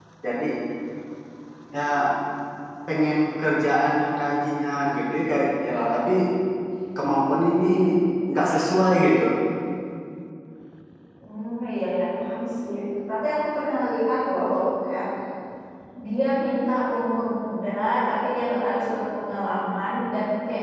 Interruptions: none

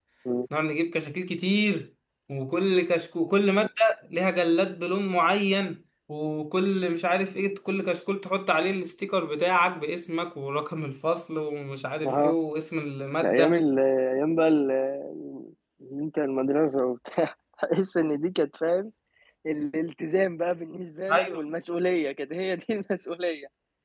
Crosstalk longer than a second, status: none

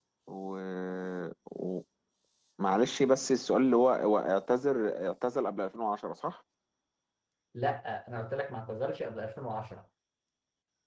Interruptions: none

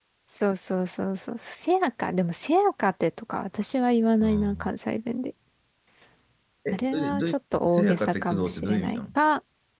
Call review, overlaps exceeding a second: present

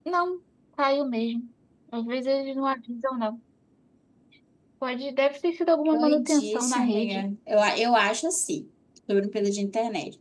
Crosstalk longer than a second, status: present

